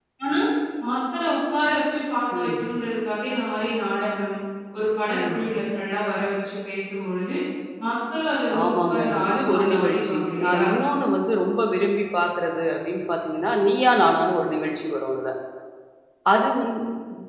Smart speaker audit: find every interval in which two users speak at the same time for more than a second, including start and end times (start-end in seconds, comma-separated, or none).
8.6-10.7